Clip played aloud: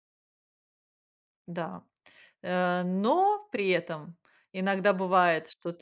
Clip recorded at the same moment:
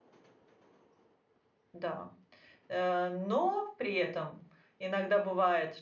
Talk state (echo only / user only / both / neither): echo only